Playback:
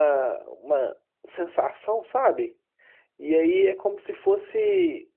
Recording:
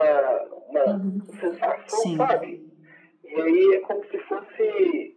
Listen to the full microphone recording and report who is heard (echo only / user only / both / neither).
both